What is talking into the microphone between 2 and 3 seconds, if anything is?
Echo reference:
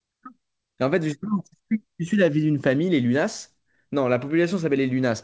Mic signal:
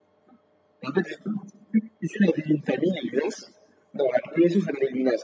echo only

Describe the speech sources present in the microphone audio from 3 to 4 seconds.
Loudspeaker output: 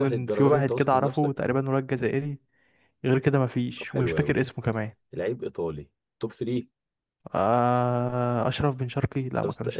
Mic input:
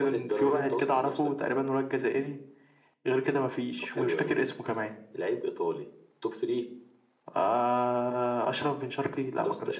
echo only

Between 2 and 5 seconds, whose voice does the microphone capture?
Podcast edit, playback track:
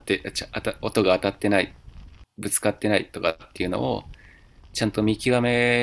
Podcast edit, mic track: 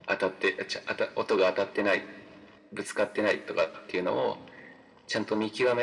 echo only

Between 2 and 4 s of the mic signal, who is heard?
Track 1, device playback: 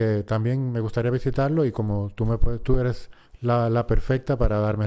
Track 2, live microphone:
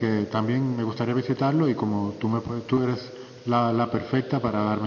echo only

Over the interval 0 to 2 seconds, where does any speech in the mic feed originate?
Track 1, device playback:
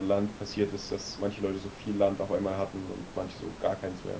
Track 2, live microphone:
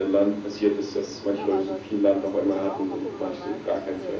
both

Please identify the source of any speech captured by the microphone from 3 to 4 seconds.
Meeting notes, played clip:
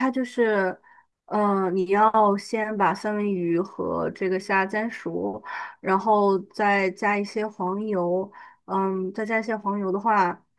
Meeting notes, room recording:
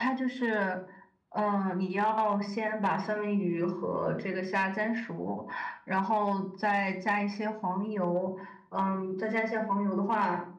echo only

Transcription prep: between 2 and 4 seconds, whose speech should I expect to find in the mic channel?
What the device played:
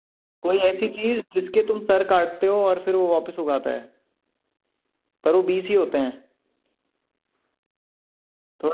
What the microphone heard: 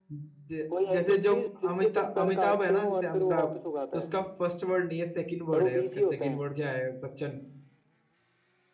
both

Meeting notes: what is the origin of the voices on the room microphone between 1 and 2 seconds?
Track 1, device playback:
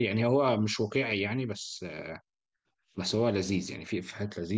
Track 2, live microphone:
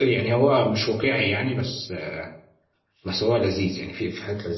echo only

